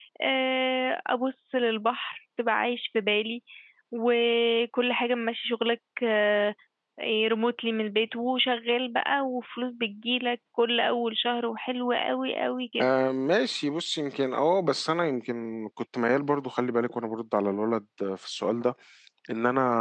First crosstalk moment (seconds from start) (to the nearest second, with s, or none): none